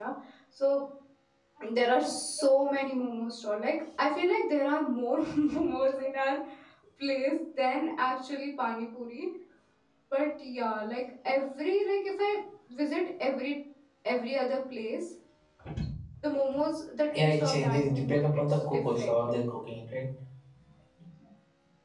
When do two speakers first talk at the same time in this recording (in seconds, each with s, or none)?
17.1 s